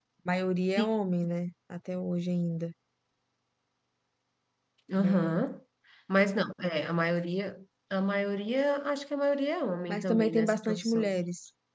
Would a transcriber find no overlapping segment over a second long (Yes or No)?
No